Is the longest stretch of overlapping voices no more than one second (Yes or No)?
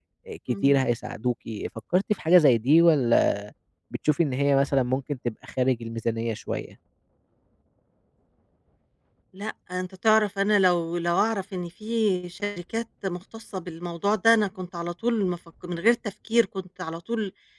Yes